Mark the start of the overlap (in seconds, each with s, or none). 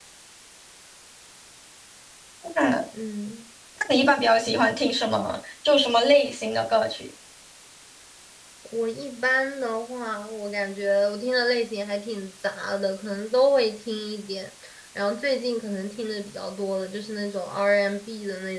none